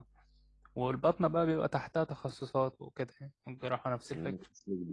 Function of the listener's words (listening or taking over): taking over